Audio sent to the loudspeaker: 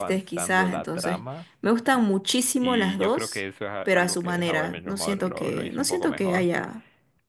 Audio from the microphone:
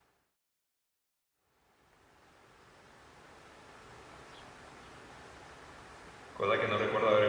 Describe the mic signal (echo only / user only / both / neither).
user only